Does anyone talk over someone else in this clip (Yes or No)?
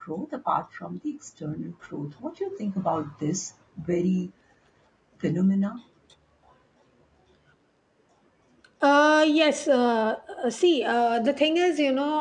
No